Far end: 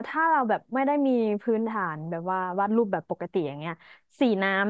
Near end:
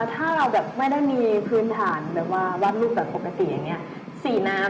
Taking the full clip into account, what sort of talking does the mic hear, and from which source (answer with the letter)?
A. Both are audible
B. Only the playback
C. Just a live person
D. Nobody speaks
B